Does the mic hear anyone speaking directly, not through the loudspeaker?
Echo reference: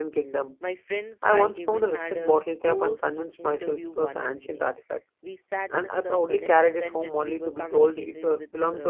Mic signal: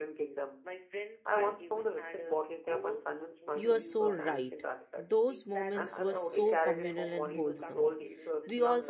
Yes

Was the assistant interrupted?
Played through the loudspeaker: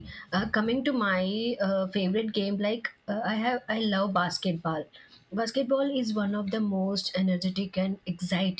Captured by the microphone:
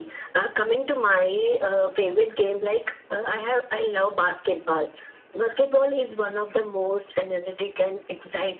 No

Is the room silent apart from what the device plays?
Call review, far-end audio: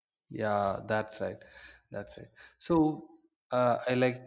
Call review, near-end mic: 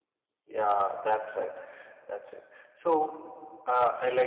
Yes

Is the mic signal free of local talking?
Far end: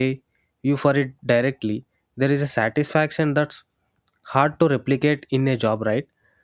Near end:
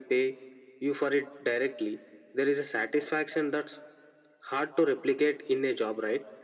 Yes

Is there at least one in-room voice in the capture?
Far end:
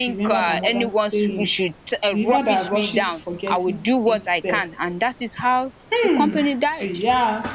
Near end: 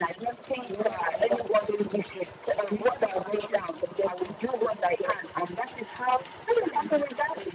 No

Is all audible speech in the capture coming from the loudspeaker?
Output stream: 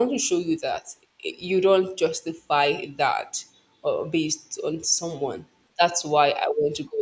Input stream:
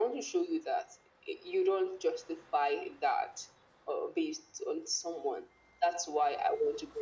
Yes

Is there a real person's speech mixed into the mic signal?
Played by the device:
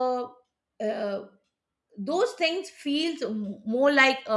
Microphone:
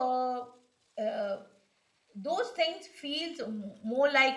No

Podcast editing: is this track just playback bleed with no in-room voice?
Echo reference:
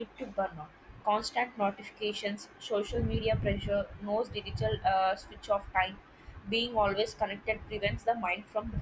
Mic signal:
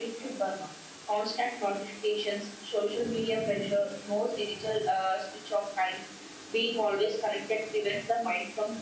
Yes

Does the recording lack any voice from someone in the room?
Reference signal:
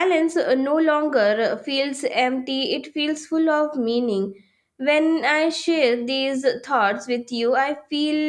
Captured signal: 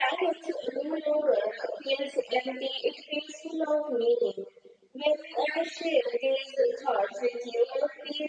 Yes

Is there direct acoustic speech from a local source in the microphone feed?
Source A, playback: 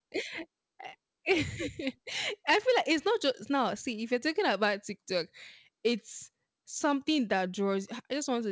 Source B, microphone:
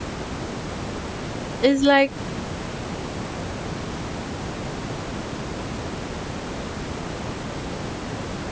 Yes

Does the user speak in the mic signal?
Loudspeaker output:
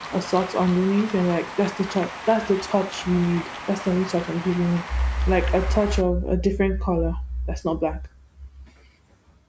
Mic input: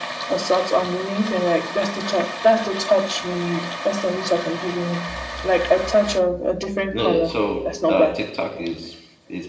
Yes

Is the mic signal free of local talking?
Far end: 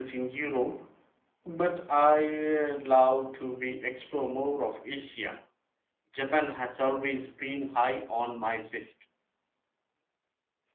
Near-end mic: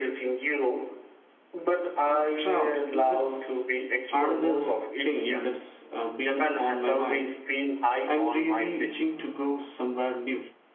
No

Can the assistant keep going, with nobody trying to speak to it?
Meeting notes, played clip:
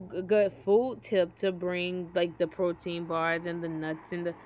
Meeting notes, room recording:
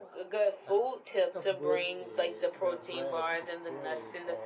No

